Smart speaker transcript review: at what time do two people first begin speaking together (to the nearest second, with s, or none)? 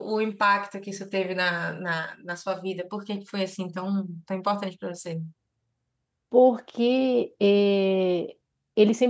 none